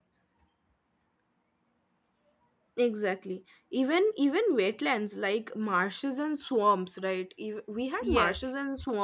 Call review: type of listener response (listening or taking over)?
listening